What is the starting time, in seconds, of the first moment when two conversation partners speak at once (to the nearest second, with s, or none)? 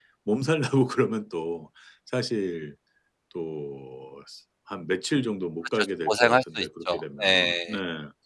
6 s